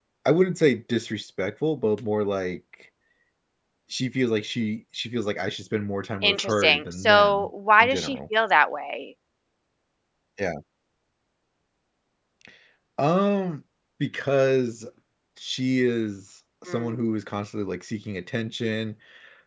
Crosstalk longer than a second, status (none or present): present